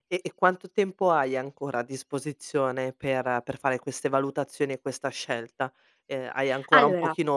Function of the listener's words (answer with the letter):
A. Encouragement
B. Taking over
A